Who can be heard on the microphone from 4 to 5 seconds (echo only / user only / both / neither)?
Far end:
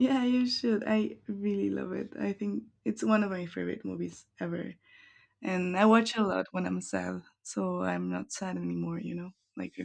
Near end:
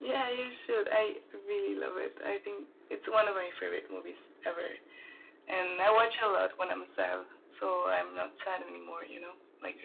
echo only